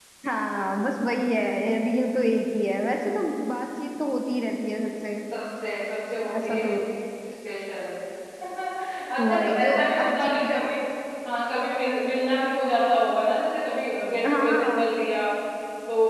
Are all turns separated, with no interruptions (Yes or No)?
No